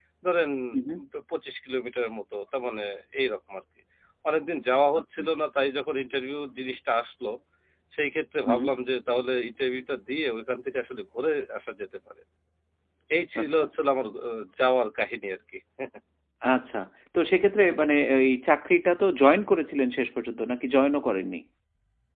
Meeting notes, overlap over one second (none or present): none